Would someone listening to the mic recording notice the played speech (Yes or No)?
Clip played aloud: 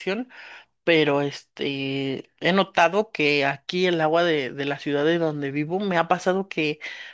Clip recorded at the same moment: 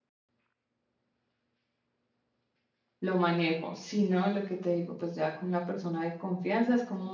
No